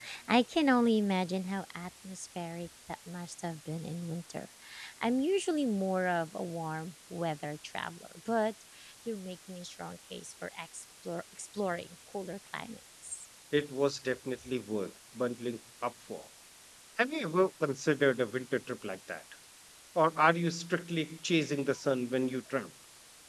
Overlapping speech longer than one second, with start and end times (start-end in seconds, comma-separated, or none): none